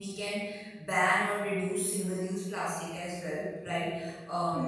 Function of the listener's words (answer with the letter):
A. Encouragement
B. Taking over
A